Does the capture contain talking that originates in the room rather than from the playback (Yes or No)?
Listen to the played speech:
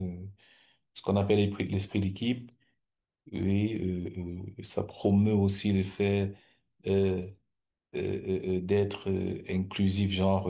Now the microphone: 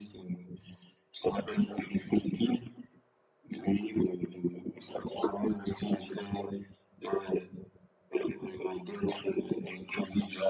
No